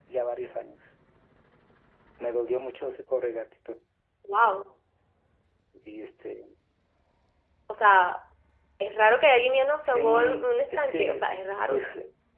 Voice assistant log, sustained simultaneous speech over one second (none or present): present